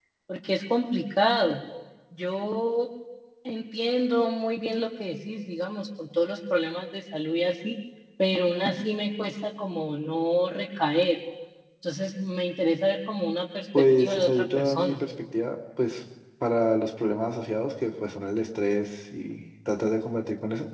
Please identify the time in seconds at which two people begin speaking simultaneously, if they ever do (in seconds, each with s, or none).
13.7 s